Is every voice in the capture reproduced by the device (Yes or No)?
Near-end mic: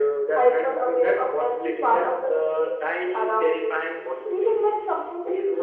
Yes